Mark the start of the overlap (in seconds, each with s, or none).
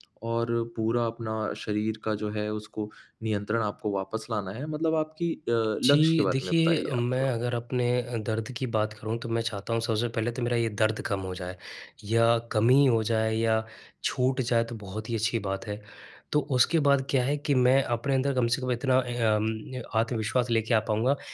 5.8 s